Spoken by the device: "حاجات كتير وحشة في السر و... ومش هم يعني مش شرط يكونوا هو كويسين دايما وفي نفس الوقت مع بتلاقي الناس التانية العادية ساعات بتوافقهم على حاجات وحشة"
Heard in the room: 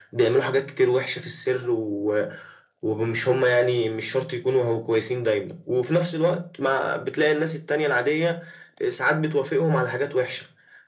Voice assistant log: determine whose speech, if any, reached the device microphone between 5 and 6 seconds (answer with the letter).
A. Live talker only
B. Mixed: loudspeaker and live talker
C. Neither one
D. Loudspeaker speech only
D